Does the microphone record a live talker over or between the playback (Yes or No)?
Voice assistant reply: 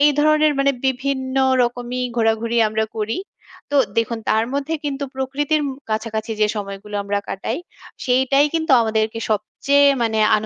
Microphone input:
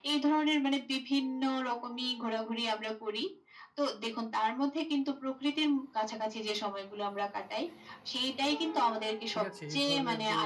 Yes